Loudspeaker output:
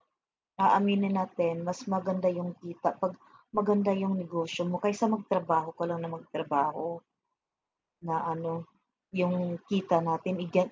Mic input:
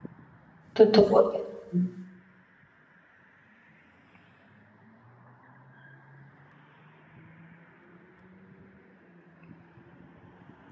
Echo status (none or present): none